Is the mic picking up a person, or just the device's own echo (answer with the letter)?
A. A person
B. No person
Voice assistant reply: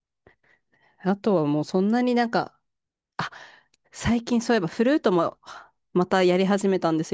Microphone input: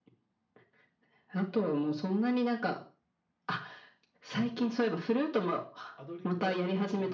A